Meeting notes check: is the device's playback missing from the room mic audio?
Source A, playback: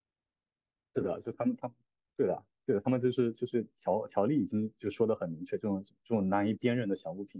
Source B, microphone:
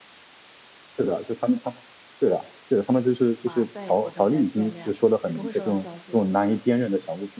No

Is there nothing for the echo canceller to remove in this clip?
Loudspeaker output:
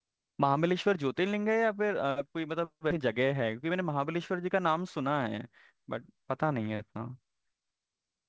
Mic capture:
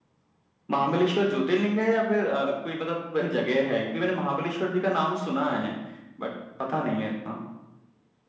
No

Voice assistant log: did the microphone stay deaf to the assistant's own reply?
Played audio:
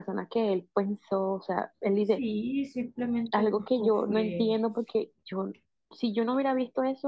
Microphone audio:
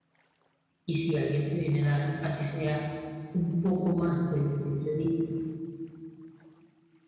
Yes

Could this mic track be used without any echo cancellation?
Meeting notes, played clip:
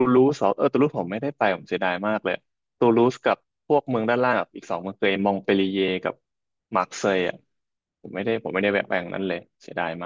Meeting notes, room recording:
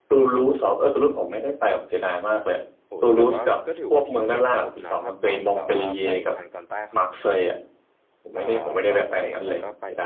No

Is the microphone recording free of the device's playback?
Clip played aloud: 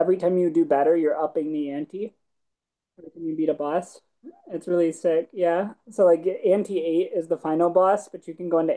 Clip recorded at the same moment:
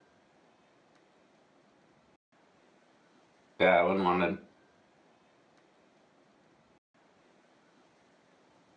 Yes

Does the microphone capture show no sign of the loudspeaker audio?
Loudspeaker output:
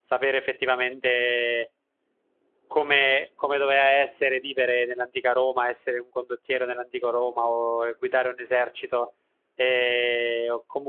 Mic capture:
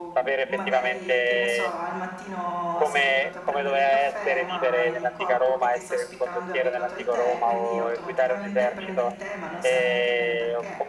No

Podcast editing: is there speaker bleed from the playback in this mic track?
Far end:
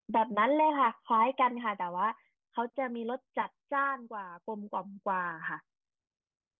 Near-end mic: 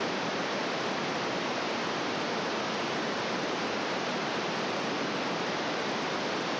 No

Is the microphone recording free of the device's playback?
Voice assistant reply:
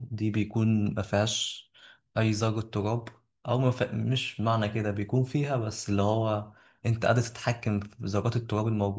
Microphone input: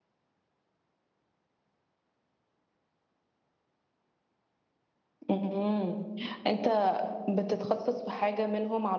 Yes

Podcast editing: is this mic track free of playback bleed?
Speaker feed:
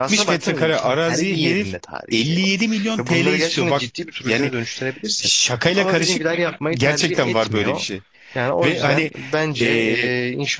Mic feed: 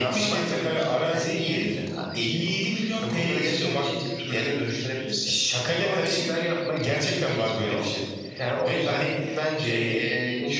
No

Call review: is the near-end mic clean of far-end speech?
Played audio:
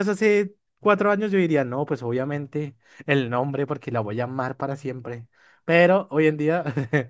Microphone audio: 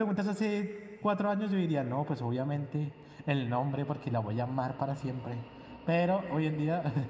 No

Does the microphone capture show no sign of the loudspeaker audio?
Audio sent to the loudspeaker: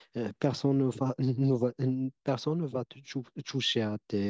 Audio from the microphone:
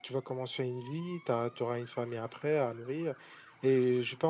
Yes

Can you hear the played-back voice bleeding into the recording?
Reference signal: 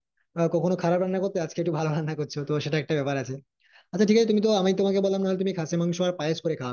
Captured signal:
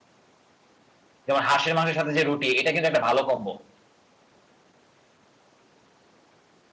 No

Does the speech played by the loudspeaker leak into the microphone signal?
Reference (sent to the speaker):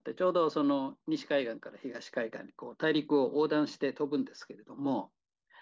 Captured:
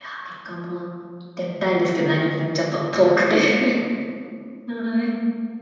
No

